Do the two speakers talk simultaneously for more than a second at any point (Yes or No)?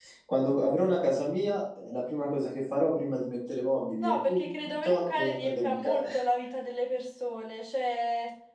Yes